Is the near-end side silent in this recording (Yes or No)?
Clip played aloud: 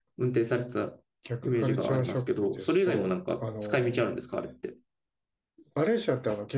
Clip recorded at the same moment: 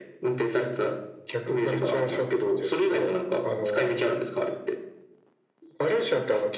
Yes